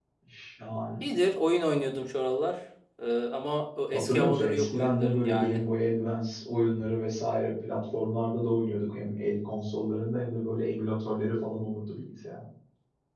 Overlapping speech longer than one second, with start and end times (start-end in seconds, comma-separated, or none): 3.9-5.6